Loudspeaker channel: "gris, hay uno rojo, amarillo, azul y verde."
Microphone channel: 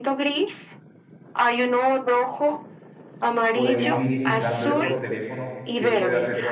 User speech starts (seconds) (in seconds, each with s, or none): 3.5 s